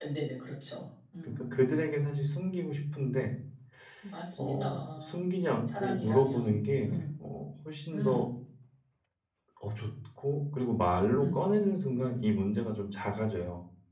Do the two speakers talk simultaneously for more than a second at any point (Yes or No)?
Yes